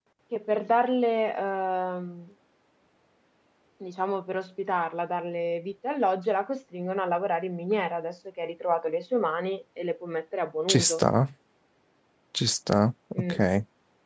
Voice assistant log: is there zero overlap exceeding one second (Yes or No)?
Yes